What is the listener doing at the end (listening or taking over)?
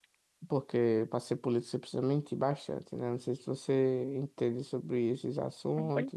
taking over